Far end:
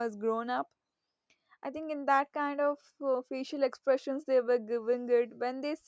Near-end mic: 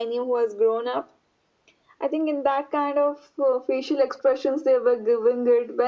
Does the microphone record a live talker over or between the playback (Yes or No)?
No